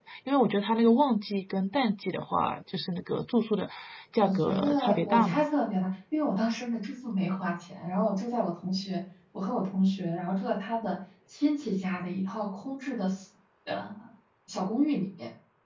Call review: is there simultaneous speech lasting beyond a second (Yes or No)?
Yes